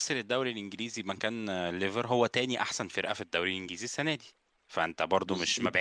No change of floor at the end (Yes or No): Yes